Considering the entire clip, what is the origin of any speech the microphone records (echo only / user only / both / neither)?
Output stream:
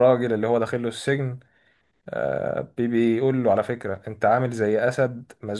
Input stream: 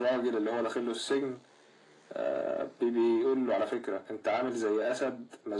echo only